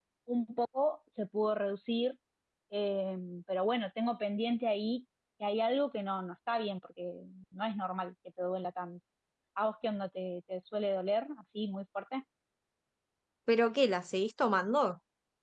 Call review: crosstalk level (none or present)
none